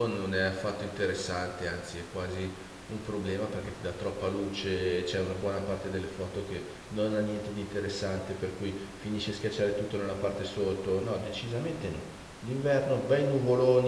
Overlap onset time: none

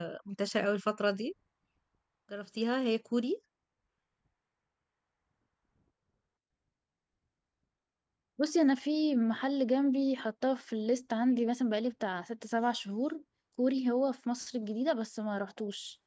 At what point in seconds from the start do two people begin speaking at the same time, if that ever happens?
none

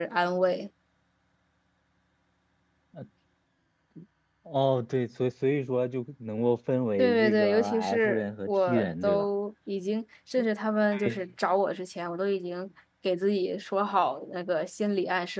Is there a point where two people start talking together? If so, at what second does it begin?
7 s

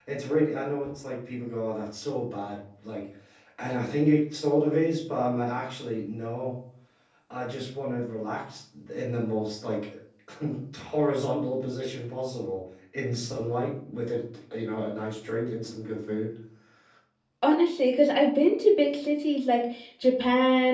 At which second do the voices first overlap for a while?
none

